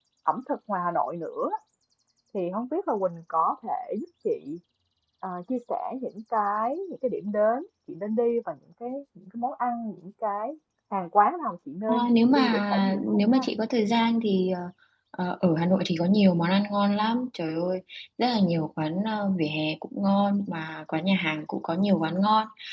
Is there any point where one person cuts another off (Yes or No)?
Yes